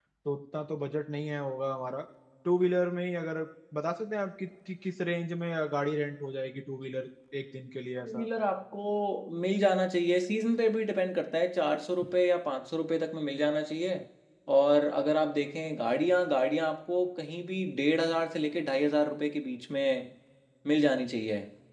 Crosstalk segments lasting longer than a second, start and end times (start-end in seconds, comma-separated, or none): none